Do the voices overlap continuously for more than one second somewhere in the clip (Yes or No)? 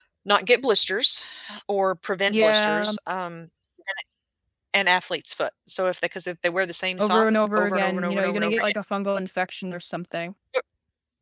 Yes